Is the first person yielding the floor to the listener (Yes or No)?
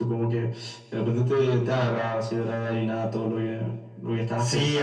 Yes